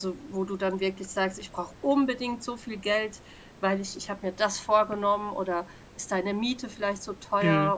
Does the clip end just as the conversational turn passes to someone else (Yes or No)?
Yes